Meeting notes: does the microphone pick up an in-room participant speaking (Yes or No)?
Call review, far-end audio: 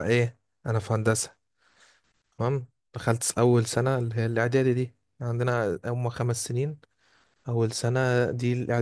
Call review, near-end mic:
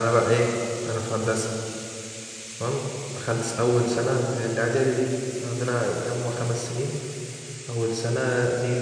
No